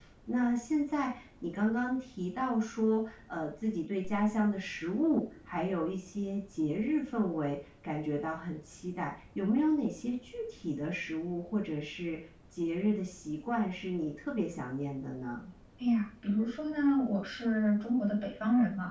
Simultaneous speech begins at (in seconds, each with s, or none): none